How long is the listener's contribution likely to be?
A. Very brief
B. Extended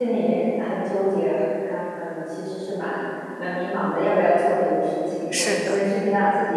A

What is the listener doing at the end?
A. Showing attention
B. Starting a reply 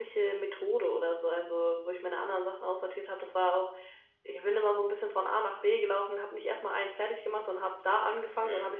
A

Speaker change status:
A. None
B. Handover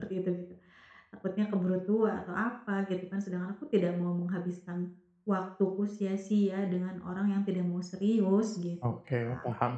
B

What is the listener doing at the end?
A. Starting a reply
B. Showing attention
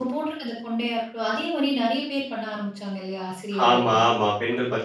A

